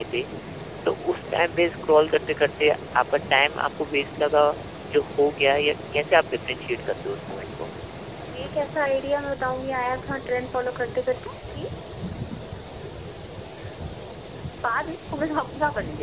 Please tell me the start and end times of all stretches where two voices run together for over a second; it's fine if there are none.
none

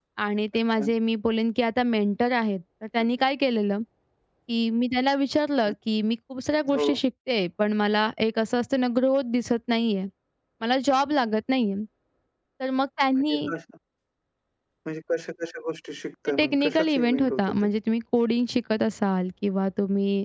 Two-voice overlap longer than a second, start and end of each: 16.4-17.7

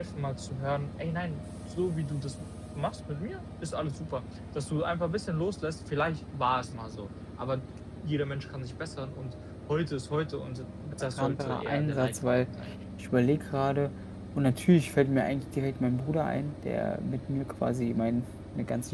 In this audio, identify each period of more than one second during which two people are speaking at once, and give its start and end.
11.2-12.5

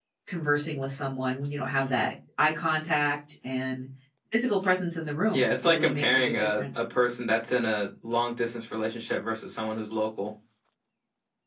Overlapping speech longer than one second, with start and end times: 5.3-6.7

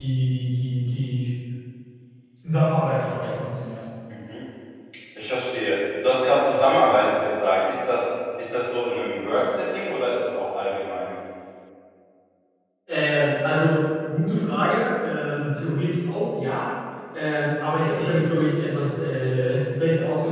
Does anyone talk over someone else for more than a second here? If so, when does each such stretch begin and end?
none

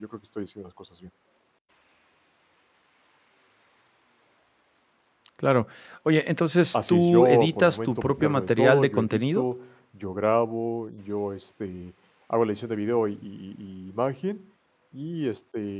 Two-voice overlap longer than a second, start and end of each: 6.7-9.4

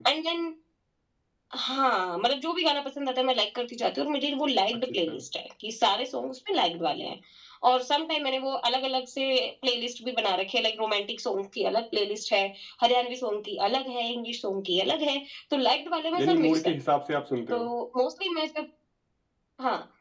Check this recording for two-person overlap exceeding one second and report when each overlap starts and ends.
none

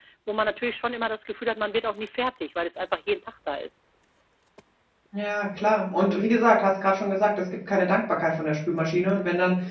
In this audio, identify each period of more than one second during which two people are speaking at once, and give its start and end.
none

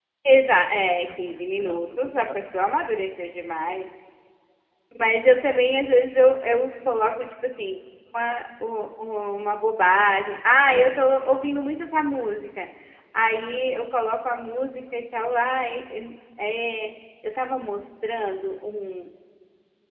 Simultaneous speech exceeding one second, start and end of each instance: 1.2-2.5

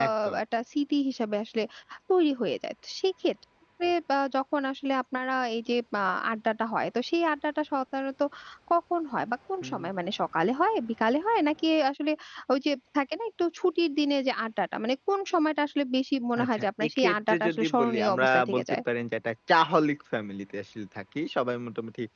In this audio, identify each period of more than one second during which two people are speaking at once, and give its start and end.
16.4-18.8

